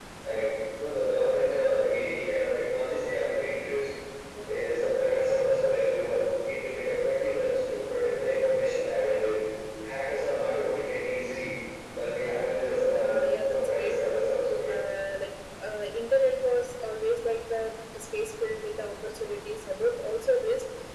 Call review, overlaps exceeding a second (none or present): present